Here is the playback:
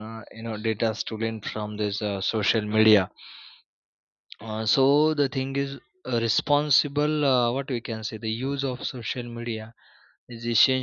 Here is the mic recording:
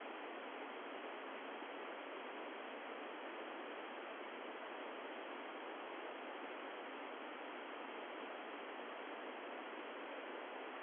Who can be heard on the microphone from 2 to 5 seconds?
neither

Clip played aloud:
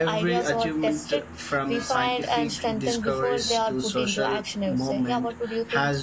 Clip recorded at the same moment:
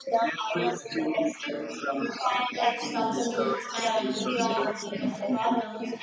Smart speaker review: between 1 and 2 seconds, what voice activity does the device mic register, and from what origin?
echo only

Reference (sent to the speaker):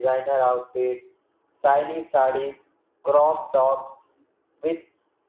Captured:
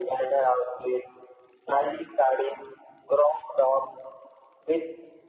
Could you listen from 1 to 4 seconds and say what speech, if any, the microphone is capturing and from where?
echo only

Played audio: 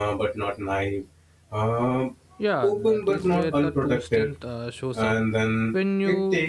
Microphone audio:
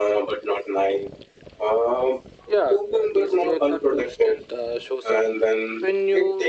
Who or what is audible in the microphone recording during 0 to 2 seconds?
echo only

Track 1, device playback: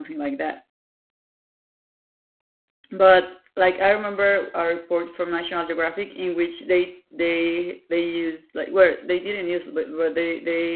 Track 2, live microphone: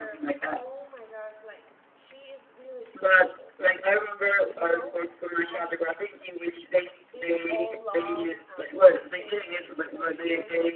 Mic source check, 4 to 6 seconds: both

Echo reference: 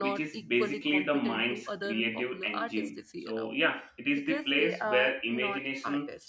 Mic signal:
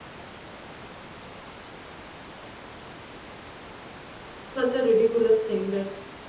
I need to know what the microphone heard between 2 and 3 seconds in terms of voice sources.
neither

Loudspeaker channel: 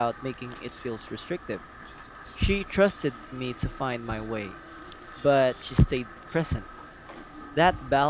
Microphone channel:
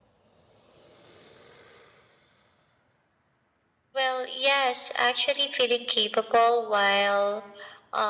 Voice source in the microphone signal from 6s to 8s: user only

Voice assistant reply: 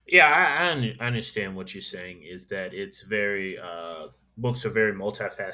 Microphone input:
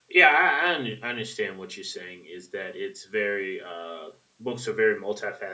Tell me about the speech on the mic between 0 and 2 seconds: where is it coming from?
echo only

